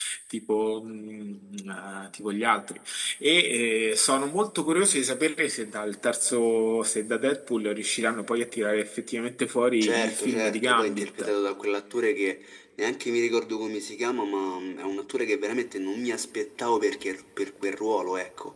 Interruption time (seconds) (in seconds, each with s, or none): 9.8 s